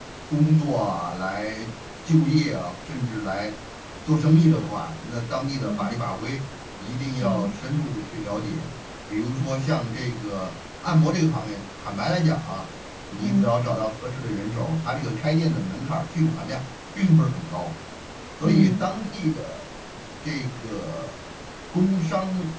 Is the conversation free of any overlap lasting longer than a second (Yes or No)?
Yes